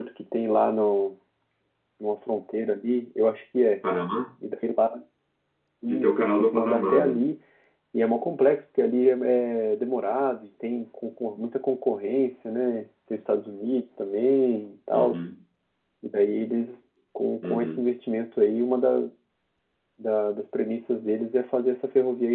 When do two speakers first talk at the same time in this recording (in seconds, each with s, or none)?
5.9 s